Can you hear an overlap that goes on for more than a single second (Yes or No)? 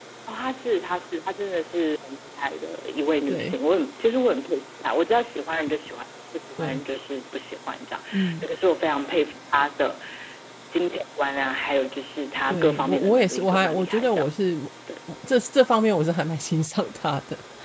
Yes